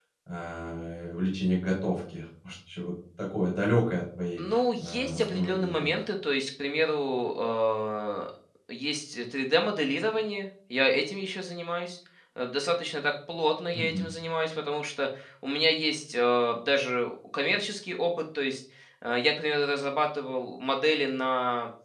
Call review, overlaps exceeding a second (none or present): present